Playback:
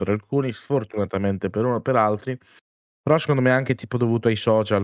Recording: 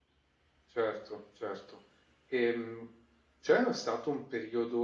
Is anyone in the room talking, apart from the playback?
Yes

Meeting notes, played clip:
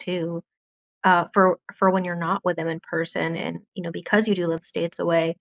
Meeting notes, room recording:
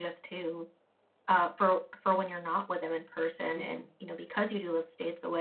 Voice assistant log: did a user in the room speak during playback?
Yes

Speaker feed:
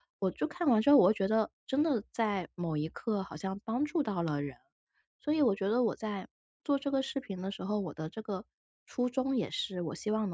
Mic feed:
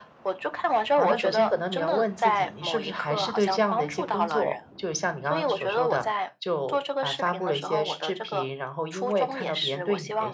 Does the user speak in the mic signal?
Yes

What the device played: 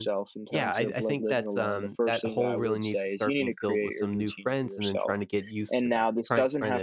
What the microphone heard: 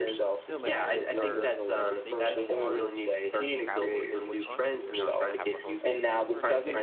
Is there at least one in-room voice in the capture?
Yes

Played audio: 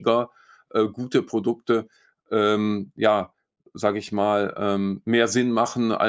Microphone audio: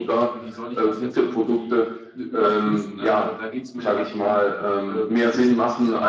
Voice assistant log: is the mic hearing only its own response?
No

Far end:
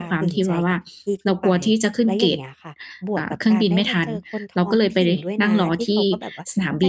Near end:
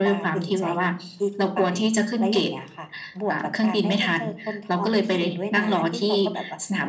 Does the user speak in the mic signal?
No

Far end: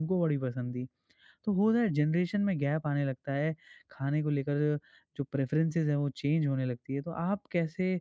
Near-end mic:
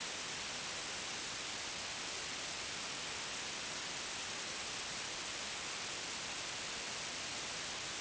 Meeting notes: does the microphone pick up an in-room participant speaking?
No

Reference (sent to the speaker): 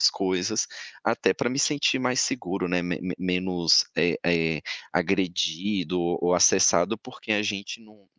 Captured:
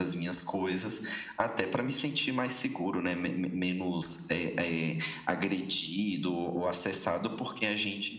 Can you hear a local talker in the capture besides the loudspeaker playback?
No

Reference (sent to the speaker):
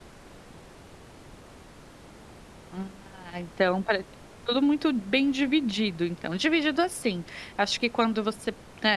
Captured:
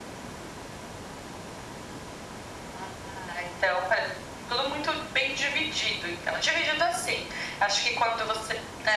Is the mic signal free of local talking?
Yes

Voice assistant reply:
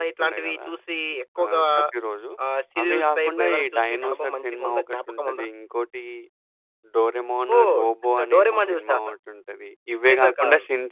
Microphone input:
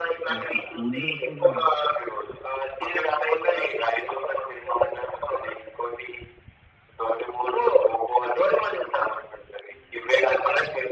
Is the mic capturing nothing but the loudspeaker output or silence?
No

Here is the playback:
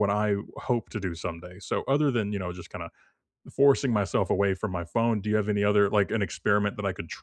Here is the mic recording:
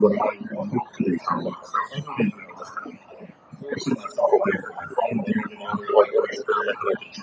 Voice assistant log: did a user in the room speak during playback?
No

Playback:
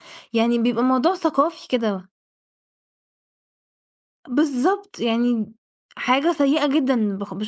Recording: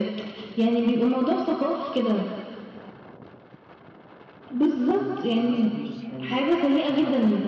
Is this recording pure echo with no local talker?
No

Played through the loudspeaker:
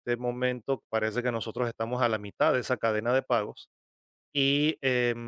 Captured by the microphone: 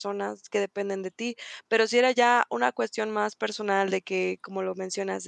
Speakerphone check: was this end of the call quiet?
No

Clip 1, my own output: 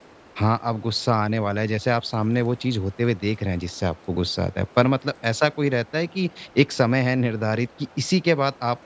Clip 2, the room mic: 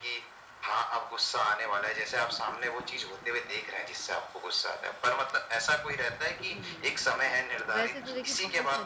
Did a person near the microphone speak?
Yes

